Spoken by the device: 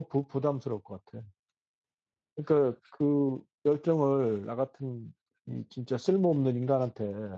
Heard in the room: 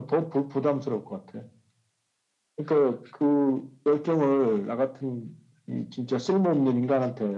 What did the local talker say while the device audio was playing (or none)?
none